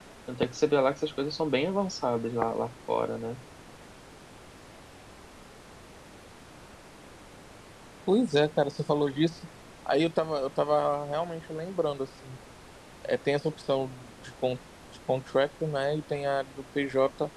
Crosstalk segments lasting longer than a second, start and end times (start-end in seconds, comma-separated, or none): none